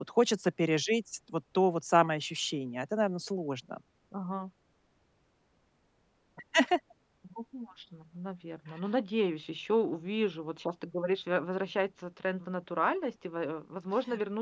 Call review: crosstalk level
none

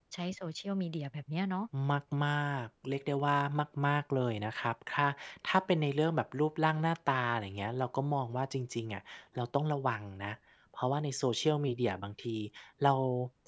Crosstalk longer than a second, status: none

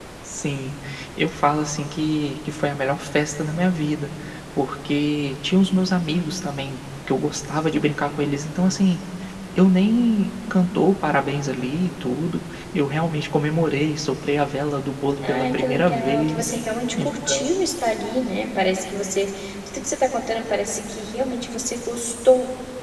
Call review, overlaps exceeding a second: present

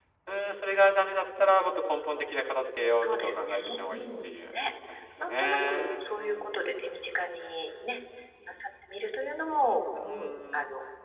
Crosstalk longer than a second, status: present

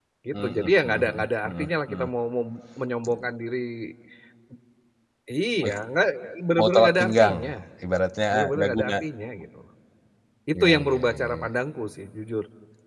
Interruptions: present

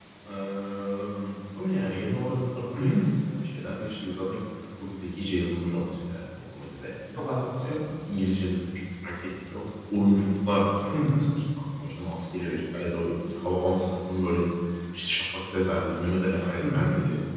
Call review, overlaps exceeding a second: none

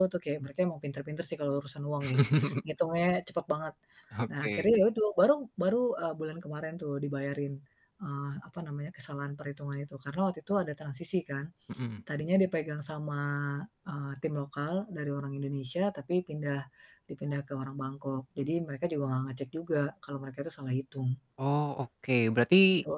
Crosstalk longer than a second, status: none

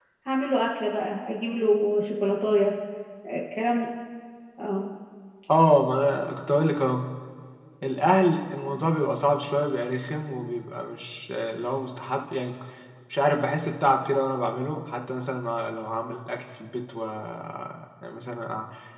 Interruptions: none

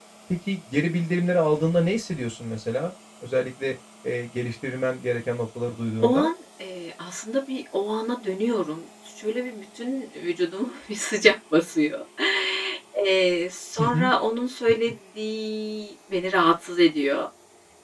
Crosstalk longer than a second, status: none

